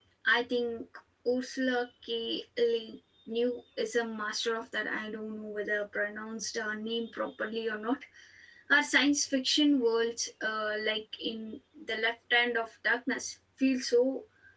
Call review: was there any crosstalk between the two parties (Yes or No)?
No